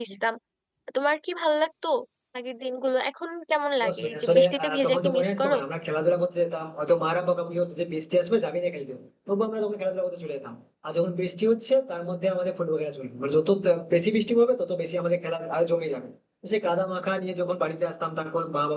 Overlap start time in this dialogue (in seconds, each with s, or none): 3.8 s